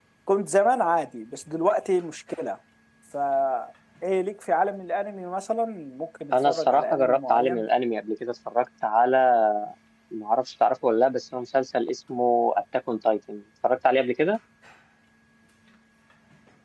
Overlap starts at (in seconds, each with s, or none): 6.3 s